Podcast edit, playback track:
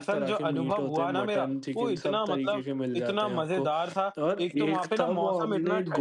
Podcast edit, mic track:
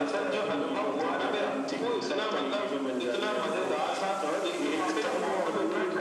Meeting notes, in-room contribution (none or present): none